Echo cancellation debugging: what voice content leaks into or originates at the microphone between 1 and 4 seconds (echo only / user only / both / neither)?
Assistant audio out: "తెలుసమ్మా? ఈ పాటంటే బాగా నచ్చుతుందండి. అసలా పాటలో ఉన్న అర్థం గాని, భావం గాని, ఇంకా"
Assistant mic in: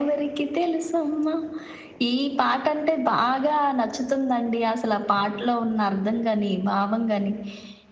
echo only